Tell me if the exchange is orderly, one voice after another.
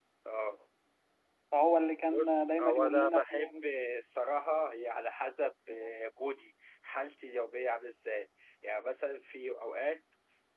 No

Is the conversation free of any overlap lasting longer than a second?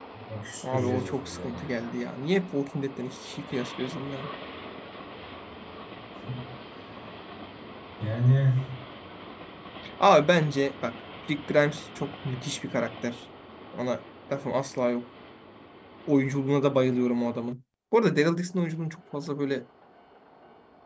No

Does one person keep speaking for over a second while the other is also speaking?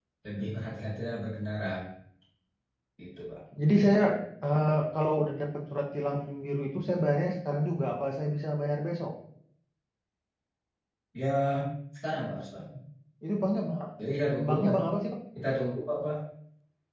No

